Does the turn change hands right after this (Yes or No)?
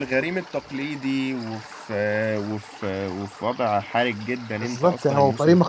Yes